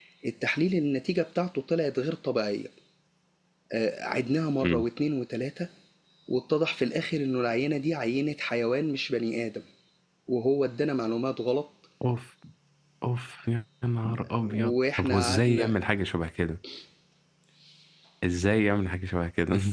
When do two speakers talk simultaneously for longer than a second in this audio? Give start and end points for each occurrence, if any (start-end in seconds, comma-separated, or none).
14.5-15.8